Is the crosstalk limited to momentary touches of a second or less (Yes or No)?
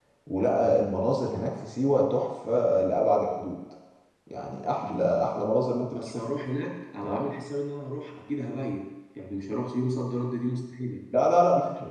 Yes